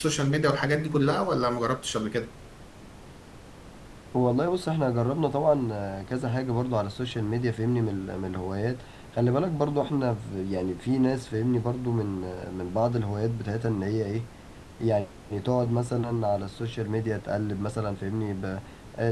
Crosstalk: none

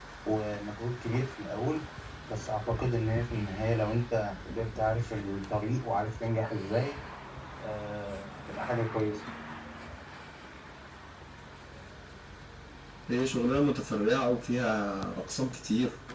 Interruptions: none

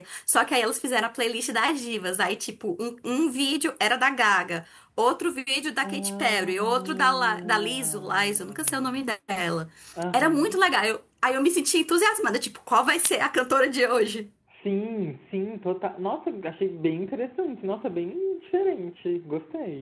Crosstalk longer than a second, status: present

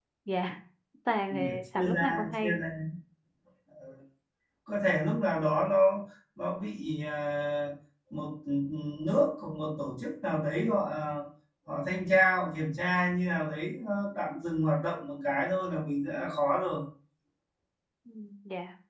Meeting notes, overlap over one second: present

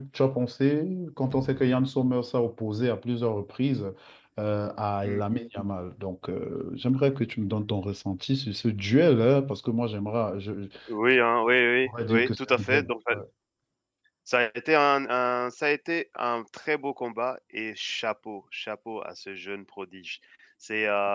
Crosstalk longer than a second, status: present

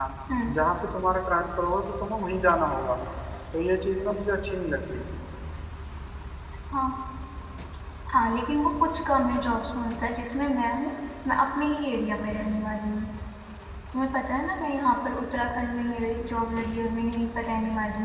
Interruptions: none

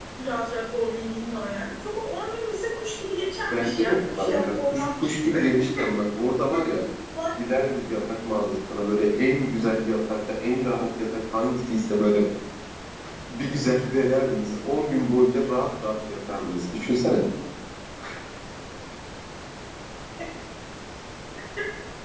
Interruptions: present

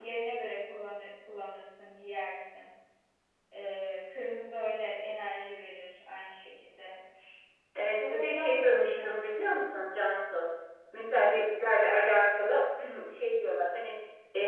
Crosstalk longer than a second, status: present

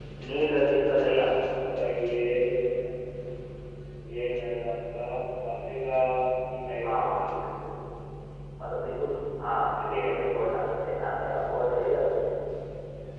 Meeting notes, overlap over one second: none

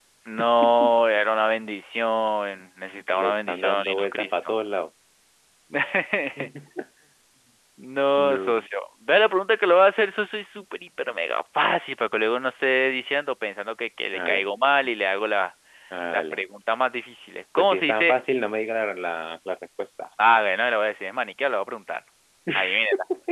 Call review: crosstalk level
present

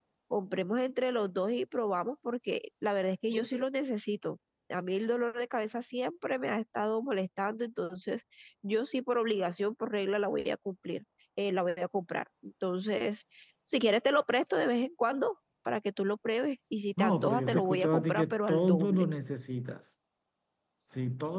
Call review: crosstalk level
present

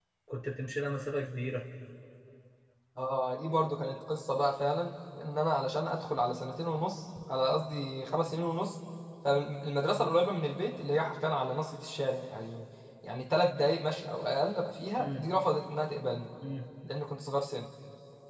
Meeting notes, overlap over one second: none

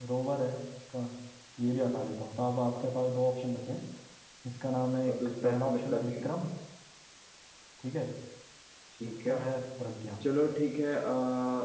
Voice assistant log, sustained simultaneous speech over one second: present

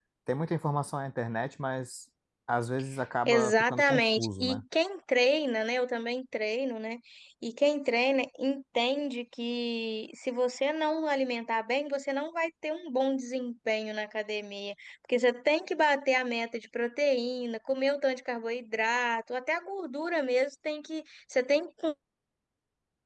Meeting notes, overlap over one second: present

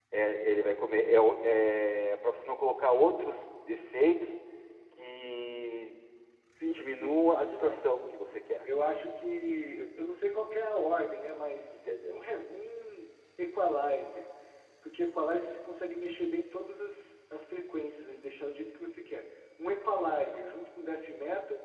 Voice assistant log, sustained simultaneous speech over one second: present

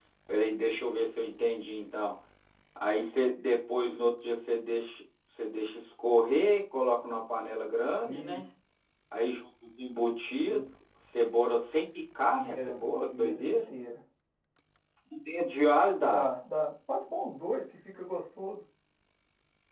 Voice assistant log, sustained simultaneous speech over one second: present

